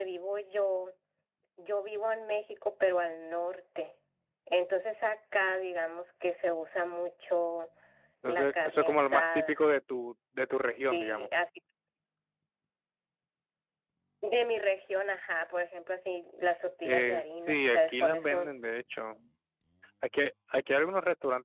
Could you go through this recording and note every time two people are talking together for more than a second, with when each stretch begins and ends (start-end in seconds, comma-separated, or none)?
8.3-9.6, 16.8-18.6